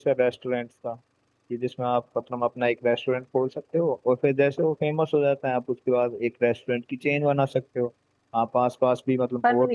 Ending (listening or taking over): taking over